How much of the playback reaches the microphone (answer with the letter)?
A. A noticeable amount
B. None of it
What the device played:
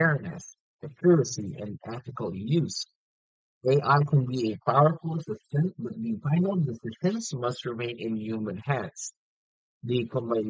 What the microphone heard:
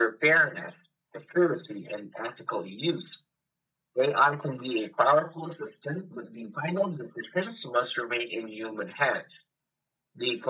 A